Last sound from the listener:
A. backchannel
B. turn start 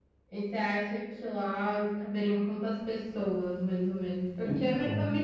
A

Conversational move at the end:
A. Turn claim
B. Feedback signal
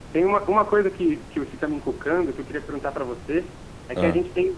B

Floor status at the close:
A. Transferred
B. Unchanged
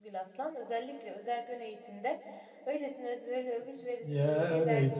A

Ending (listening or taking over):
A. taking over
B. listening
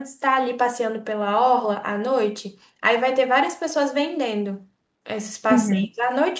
B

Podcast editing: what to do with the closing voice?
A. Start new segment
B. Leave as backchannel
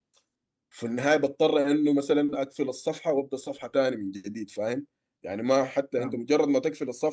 B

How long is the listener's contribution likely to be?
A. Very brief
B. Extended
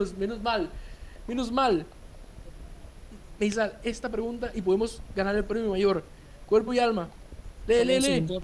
B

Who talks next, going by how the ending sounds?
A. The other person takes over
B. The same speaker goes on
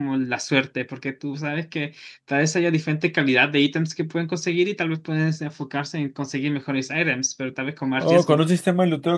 A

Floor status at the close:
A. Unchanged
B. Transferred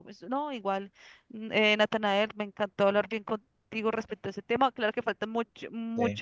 A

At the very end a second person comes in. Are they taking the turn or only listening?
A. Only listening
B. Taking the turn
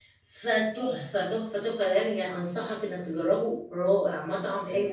B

